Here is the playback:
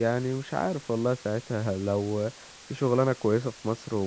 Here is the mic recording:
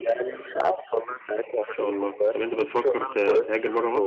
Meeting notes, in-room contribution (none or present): present